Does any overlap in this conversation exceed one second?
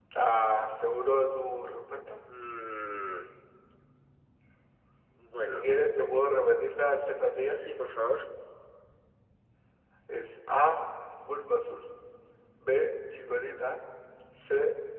No

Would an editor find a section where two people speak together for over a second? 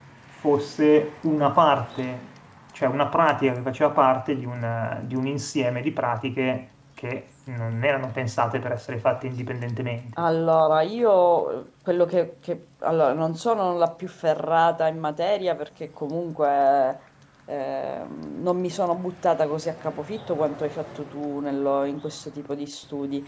No

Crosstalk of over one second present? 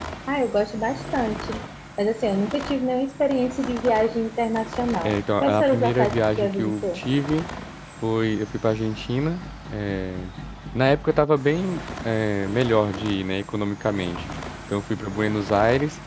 Yes, from 5.0 s

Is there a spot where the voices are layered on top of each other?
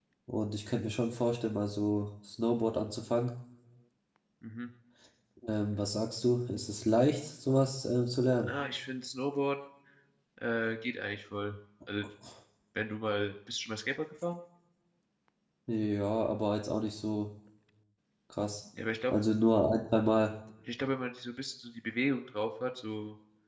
No

